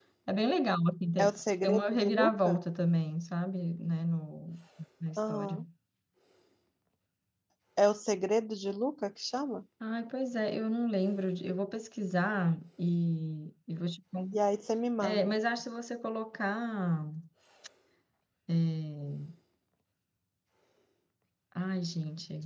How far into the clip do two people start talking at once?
1.2 s

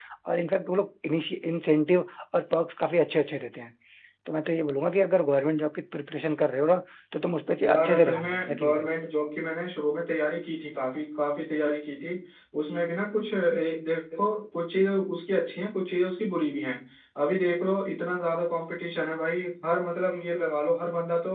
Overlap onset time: 7.6 s

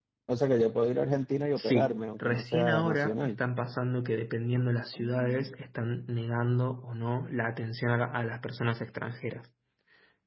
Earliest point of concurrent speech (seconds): 1.6 s

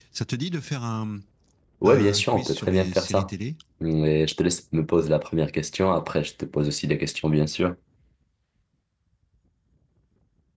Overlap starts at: 1.8 s

